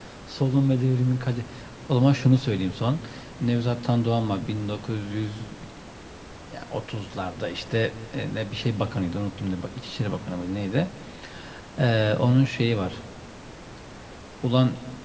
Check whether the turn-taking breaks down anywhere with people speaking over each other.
No

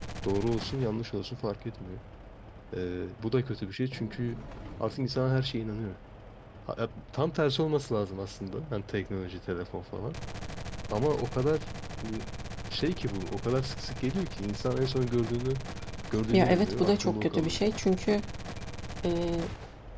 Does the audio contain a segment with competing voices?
Yes, from 16.3 s

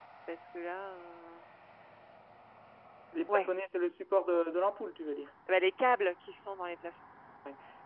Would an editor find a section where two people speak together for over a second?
No

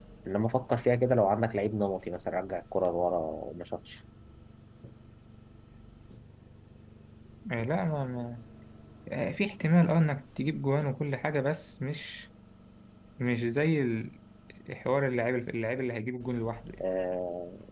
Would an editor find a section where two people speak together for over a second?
No

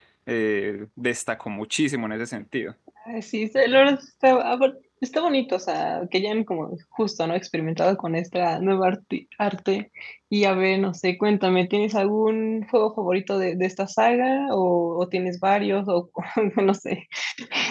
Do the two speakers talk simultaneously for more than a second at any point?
No

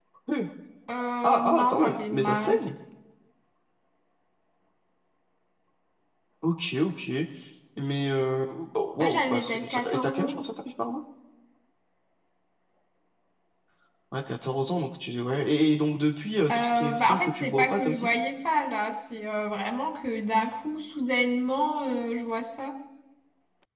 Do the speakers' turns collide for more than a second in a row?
Yes, from 1.2 s

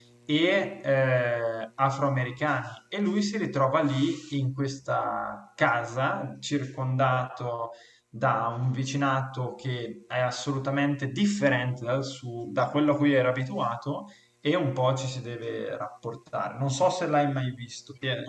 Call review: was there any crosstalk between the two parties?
No

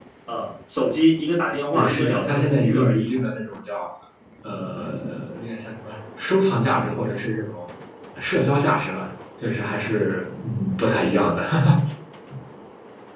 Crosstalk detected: Yes, from 1.7 s

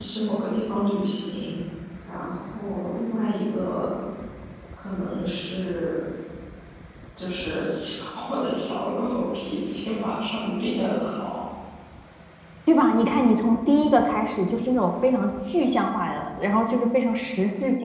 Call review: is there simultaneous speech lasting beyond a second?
No

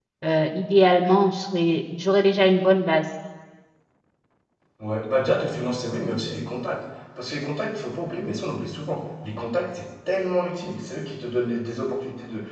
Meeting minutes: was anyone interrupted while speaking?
No

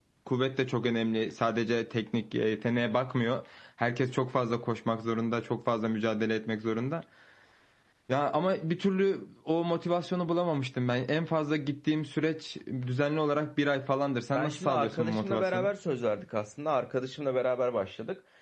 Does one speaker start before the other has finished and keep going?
Yes, from 14.3 s

